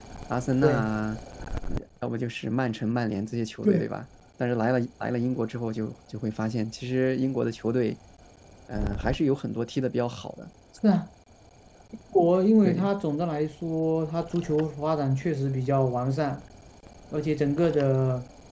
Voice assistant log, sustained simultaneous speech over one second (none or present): none